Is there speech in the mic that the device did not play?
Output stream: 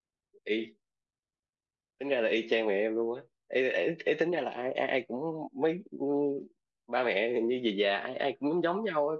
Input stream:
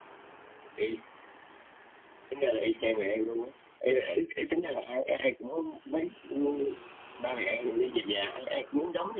No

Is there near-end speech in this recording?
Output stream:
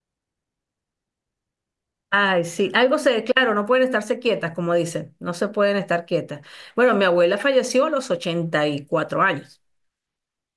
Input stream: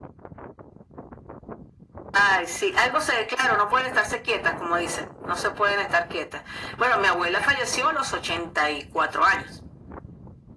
No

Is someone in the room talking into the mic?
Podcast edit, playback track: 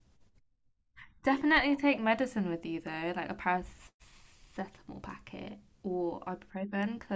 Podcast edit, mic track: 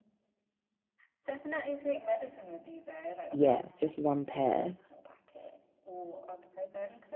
Yes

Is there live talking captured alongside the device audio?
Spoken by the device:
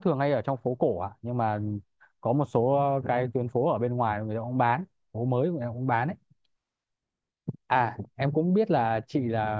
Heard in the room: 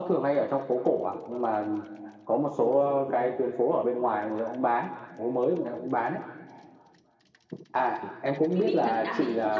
Yes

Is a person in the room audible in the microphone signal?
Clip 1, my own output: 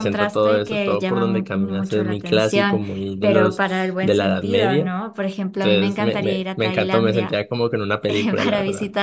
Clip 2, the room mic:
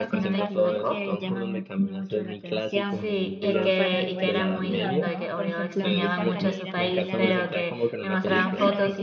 Yes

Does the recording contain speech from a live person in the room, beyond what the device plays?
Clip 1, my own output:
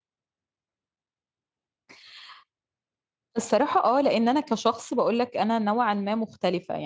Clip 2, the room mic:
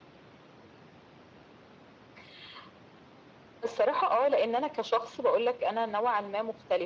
No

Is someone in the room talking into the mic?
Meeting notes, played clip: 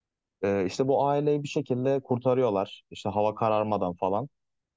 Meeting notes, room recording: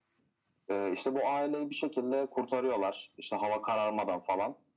No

